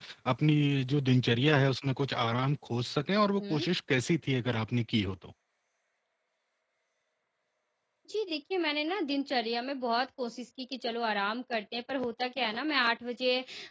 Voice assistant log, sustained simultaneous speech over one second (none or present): none